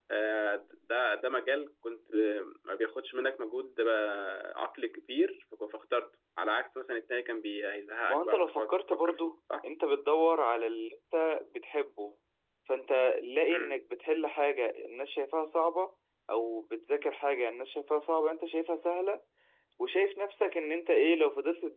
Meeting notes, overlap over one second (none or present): present